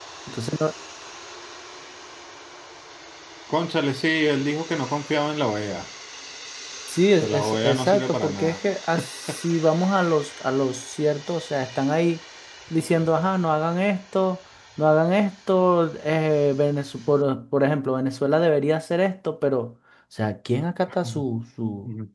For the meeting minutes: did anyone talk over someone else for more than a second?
Yes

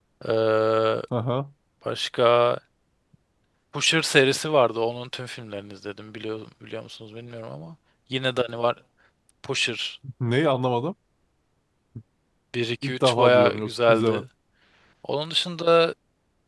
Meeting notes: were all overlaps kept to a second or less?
No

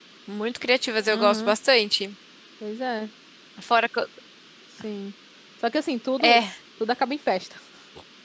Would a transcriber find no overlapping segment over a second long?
Yes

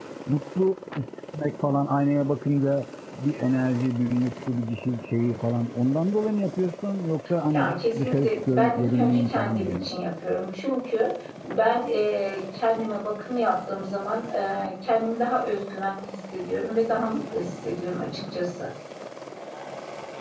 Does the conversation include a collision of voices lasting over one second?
Yes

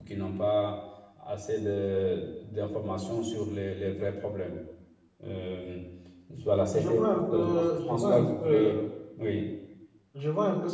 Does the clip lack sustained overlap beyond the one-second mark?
No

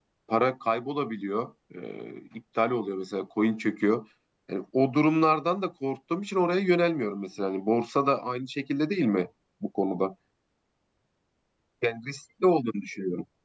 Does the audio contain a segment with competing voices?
No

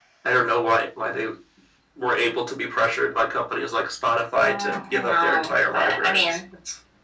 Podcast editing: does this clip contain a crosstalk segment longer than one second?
Yes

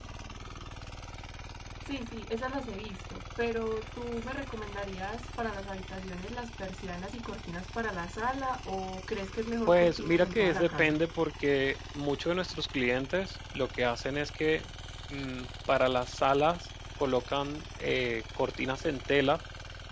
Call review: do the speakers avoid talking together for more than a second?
No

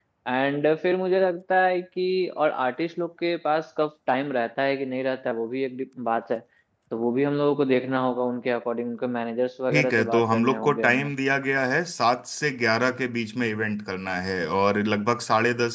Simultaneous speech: Yes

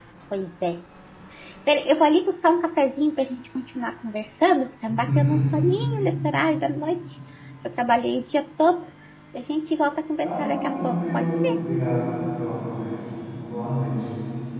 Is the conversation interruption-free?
No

